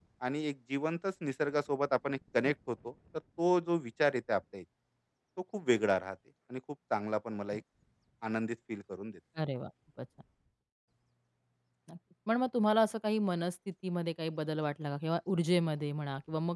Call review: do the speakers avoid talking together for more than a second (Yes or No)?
Yes